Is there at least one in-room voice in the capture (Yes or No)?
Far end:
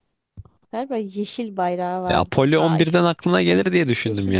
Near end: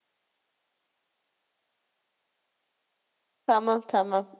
Yes